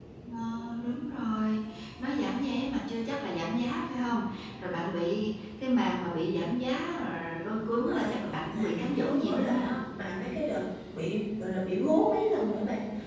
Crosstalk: present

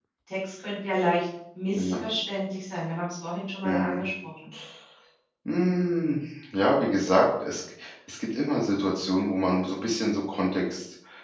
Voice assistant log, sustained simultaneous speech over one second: none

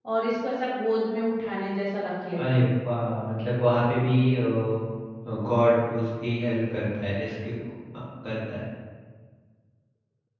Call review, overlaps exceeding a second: none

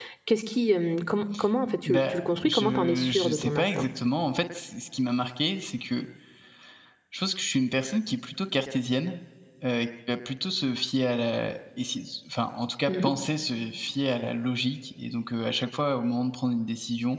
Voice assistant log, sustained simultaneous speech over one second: present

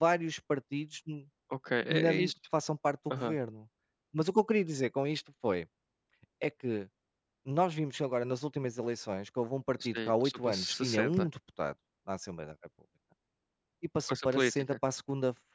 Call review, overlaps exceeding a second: present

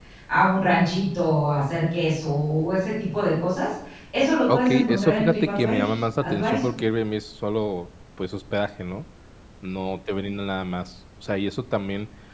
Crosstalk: present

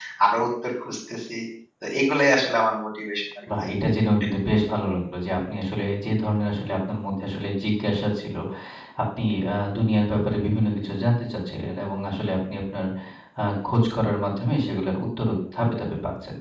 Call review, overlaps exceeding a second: none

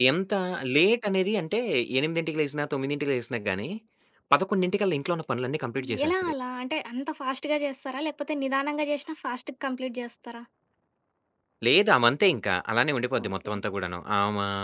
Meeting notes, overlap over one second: none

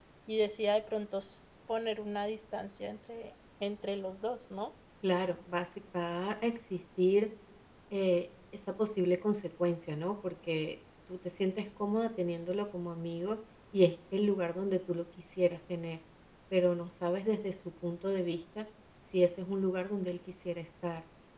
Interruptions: none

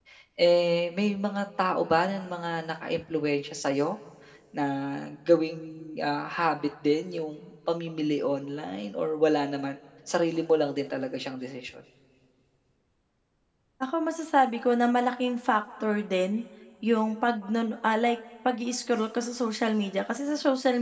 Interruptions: none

